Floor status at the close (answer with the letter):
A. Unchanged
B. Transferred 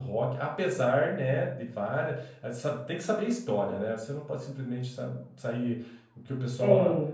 A